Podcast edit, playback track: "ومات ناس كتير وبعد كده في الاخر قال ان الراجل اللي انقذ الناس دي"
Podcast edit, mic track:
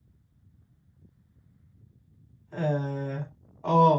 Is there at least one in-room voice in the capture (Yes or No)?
Yes